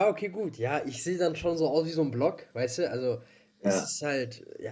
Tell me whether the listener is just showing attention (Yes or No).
Yes